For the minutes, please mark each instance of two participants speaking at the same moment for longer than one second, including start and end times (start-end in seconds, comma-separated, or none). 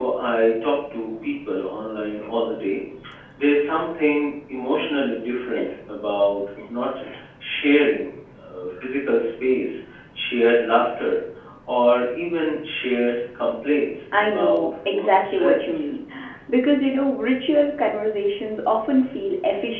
14.2-15.8